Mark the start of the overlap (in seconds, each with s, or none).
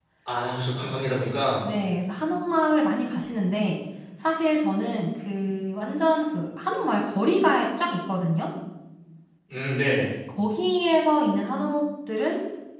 none